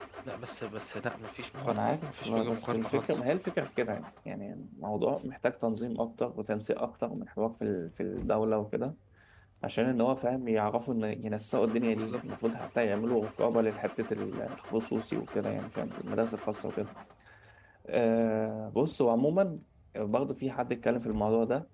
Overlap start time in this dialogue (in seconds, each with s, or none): 1.6 s